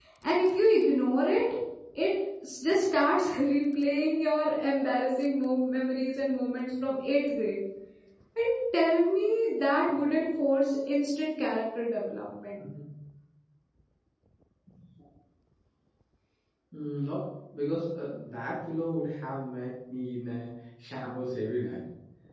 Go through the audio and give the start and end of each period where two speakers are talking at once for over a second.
none

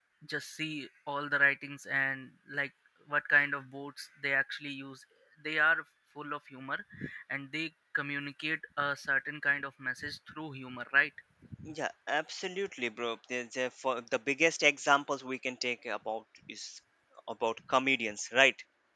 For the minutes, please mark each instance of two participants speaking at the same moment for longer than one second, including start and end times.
none

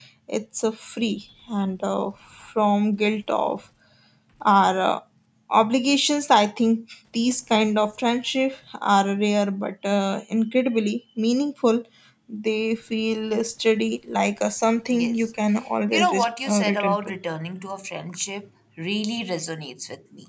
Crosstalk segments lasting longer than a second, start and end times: 15.9-17.1

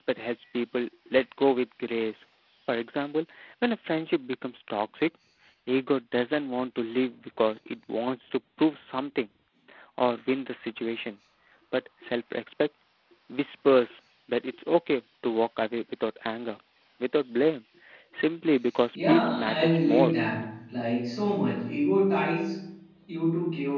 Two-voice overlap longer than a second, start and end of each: 18.9-20.2

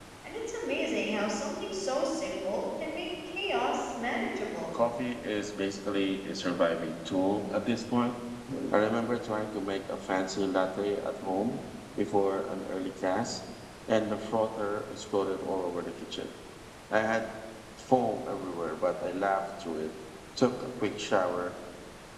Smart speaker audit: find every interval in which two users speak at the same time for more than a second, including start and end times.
none

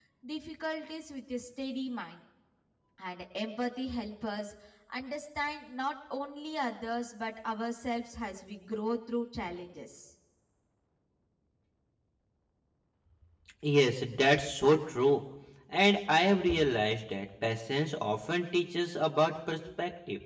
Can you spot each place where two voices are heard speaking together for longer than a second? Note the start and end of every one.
none

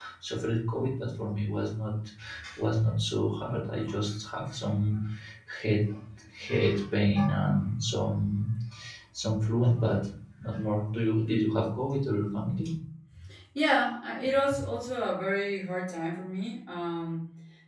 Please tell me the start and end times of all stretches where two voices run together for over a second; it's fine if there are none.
none

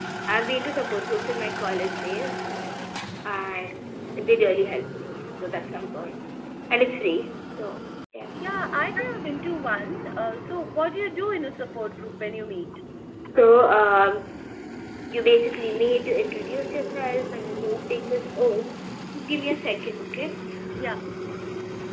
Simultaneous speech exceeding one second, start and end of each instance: none

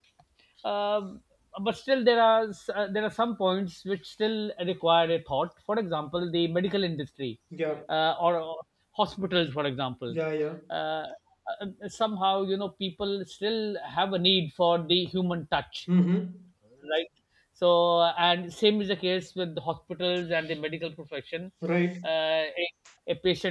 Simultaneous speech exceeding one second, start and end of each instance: none

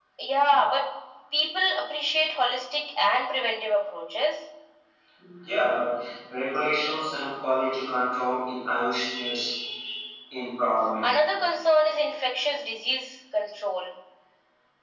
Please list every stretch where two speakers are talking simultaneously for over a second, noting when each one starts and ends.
none

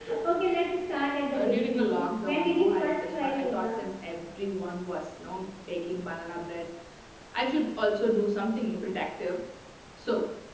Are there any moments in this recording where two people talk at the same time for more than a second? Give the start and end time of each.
1.3-3.9

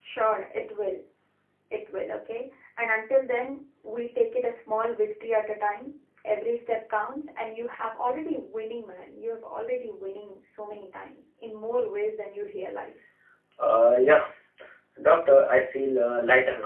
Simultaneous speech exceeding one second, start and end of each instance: none

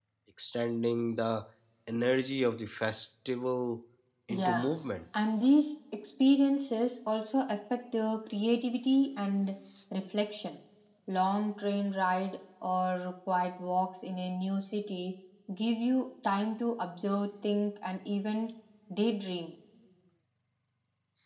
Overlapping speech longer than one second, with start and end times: none

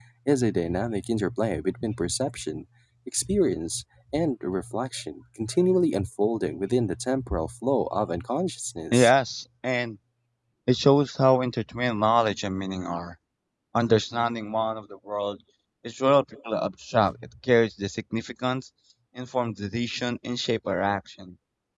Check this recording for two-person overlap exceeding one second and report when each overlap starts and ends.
none

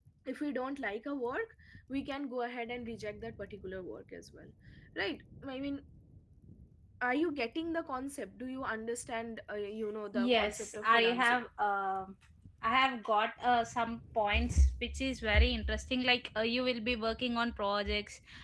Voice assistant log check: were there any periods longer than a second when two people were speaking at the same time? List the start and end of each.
10.1-11.4

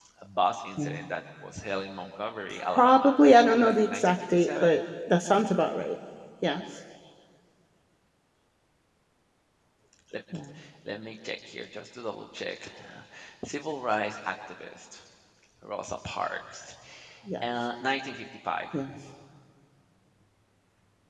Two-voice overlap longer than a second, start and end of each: 2.5-4.8

